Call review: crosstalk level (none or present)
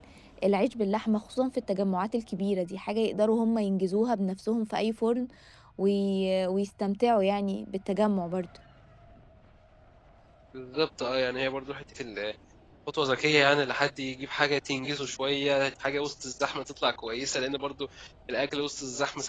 none